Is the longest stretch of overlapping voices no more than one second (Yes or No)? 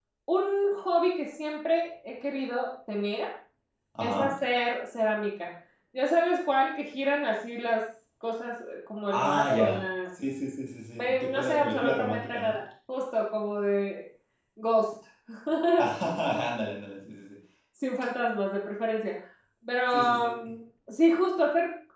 No